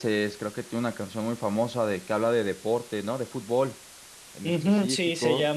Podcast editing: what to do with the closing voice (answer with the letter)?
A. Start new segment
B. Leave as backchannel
A